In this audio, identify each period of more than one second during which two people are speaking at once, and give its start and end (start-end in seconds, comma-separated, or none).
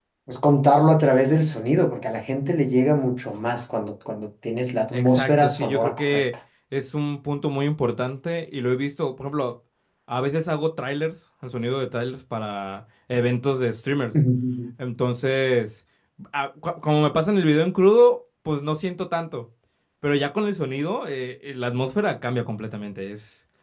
4.9-6.2